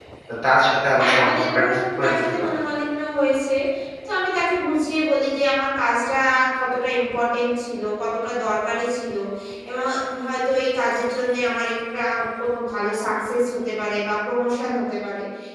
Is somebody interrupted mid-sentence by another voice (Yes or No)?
Yes